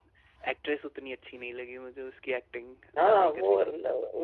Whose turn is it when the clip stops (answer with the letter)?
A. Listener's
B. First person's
A